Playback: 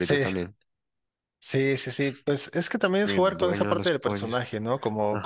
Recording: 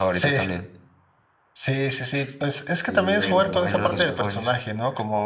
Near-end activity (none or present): present